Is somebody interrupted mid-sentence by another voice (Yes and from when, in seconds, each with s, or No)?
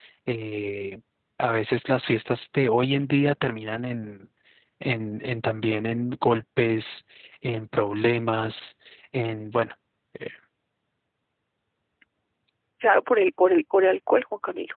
No